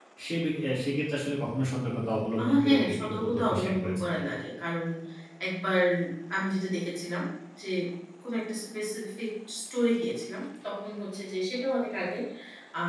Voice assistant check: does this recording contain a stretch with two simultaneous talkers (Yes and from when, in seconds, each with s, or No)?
Yes, from 2.4 s